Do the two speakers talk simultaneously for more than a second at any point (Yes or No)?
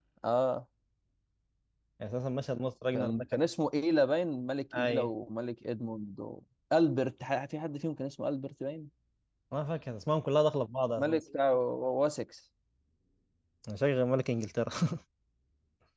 No